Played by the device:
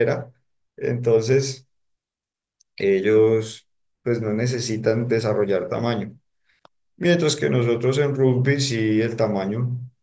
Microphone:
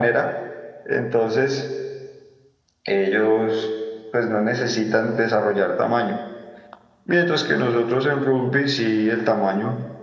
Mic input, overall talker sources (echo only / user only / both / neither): echo only